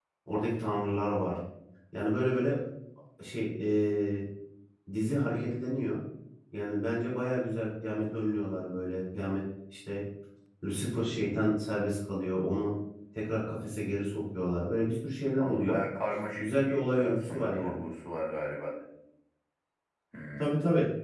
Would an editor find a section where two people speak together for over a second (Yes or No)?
Yes